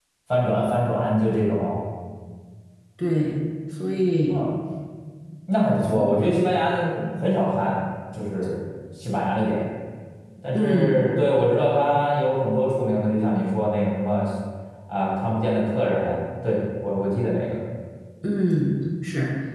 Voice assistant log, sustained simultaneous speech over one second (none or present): none